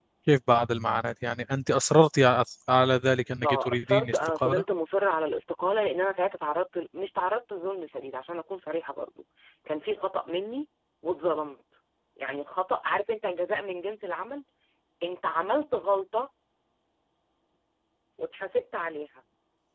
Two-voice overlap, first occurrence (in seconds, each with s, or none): 3.4 s